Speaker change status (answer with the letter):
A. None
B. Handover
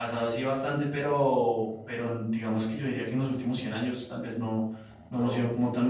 A